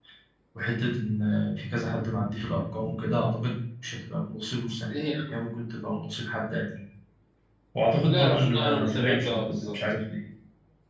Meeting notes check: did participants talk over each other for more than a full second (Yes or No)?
Yes